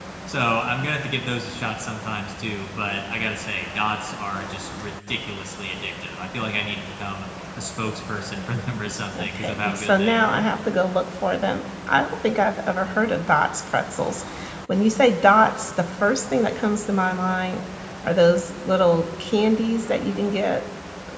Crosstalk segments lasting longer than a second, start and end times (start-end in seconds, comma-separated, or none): 9.2-10.5